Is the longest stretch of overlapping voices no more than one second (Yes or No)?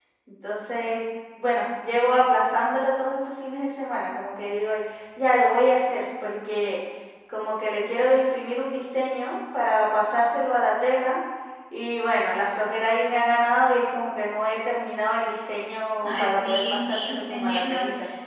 No